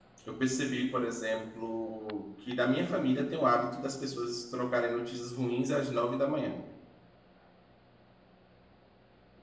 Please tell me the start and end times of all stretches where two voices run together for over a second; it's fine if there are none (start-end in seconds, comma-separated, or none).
none